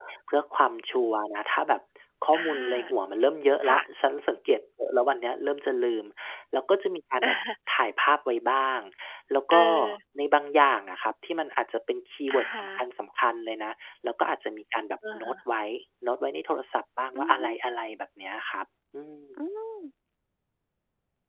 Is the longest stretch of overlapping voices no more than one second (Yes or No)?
Yes